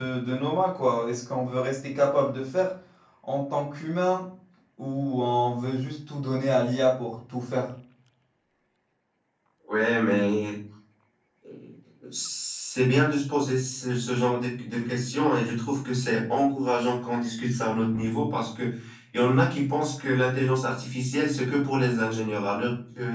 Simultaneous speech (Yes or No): No